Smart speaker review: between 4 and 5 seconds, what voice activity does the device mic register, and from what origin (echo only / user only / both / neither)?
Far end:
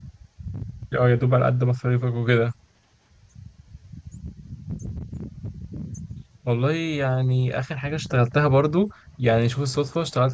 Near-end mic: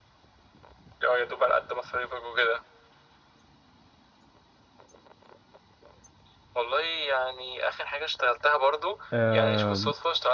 neither